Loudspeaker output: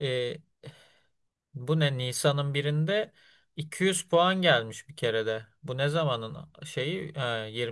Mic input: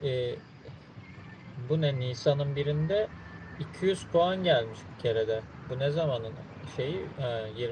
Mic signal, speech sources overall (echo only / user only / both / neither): echo only